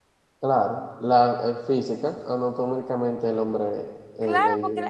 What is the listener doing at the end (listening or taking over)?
taking over